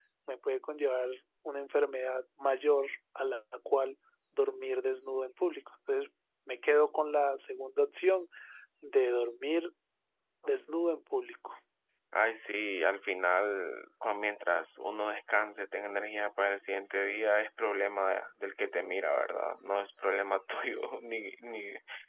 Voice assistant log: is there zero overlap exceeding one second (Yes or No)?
Yes